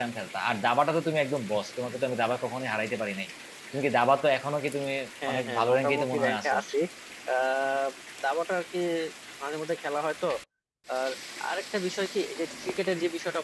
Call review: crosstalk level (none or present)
present